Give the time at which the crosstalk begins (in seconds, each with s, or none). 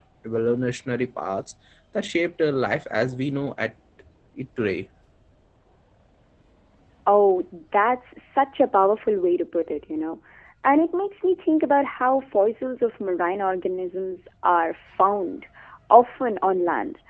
none